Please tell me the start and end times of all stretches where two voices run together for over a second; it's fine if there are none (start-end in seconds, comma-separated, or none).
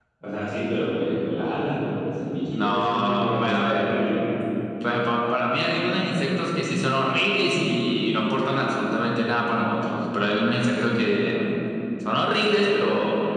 2.5-3.9